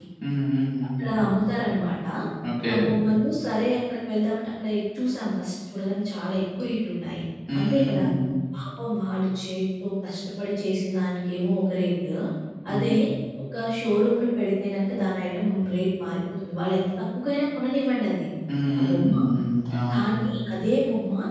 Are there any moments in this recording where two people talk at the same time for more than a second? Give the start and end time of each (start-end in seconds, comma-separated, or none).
none